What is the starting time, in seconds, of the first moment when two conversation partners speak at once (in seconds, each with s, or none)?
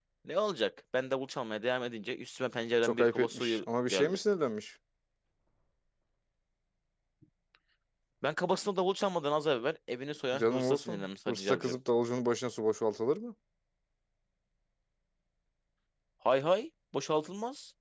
2.8 s